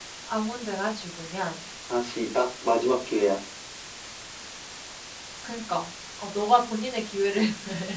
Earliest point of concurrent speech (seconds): none

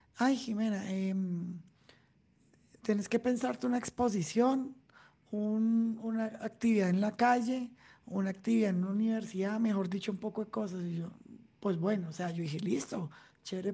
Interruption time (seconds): none

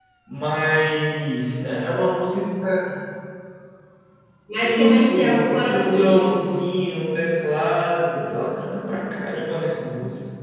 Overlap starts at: 4.6 s

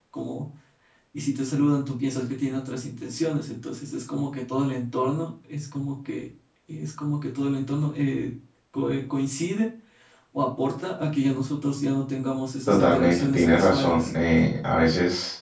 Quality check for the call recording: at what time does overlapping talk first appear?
12.7 s

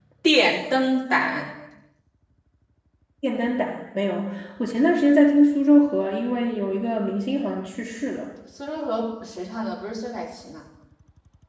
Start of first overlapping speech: none

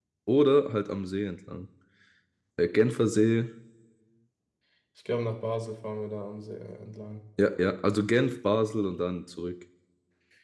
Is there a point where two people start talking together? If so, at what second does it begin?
none

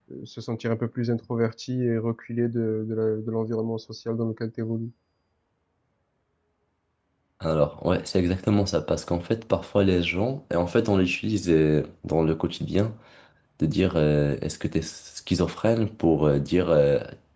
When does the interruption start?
none

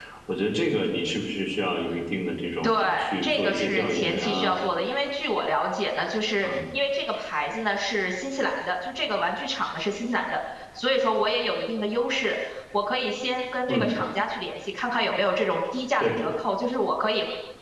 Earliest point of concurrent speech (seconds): 2.6 s

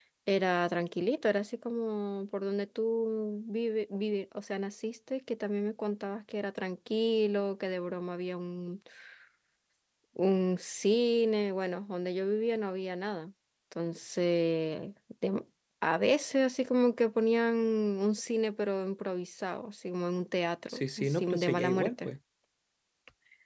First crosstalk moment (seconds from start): 20.7 s

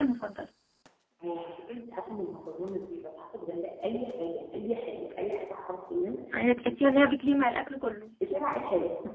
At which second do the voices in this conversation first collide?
none

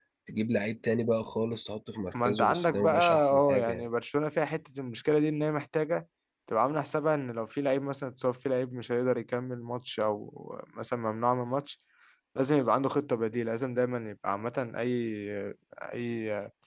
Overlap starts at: 2.1 s

